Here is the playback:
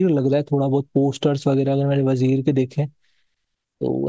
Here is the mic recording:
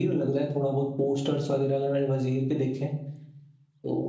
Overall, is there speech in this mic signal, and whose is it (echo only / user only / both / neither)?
echo only